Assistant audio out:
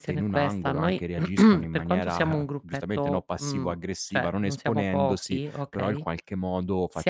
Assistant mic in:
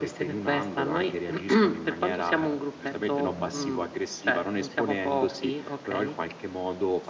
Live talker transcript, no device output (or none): Mhmm.